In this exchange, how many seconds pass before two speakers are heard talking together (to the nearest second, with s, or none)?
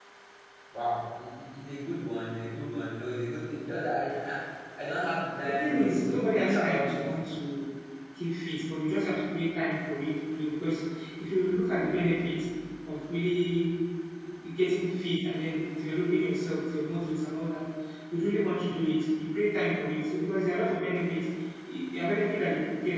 5 s